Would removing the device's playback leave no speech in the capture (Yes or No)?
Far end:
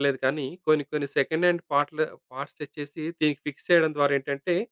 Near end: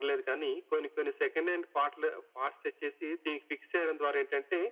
Yes